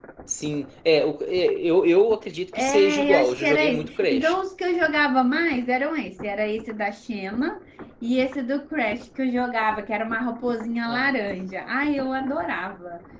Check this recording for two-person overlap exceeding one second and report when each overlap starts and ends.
2.5-4.4

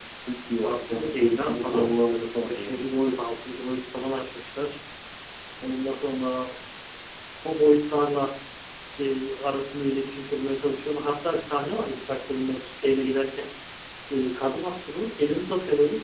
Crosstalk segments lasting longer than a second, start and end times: 0.6-2.8

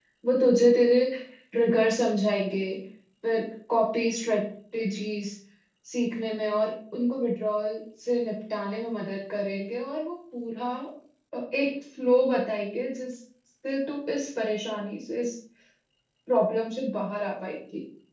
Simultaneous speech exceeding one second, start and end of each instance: none

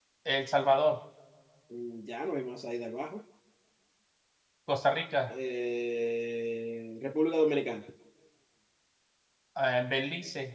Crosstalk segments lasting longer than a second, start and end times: none

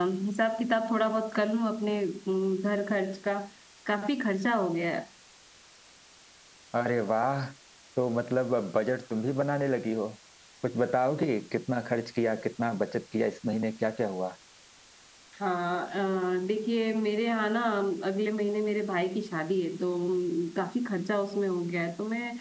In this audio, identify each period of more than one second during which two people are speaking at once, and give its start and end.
none

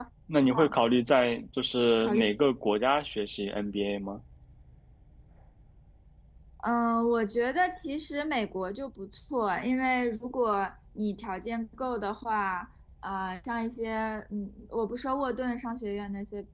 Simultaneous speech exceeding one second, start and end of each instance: none

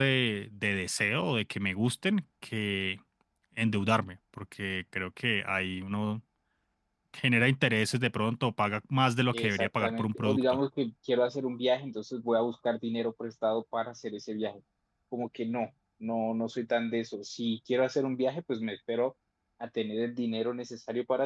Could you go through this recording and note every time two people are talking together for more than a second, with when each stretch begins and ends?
9.3-10.6

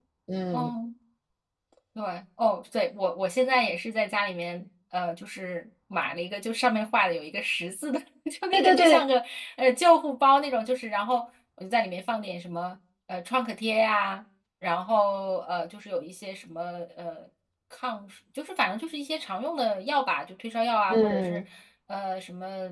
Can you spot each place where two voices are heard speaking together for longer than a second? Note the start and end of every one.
none

